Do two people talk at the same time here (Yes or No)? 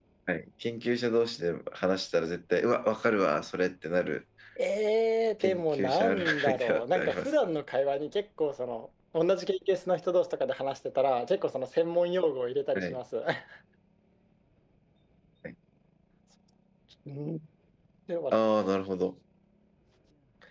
Yes